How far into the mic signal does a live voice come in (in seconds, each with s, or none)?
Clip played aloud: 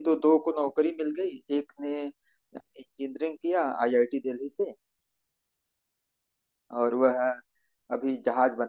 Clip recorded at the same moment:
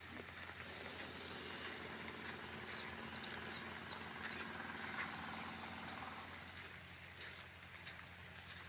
none